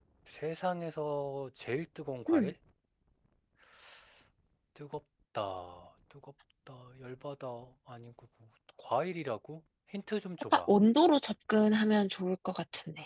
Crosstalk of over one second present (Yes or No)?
No